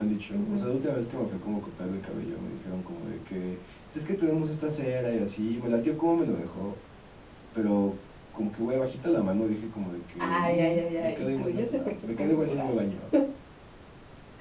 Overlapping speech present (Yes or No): Yes